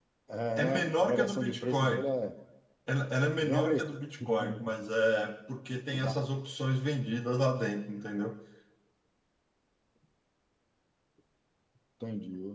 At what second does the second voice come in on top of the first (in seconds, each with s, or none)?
0.6 s